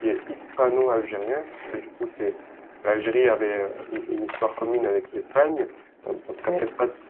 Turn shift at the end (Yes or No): No